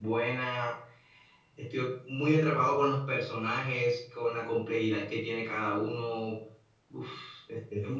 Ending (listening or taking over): taking over